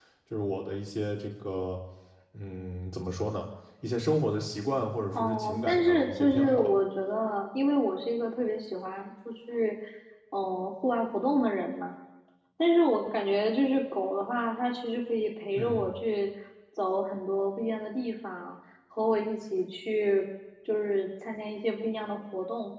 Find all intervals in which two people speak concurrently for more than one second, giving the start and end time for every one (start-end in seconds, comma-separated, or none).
5.1-6.7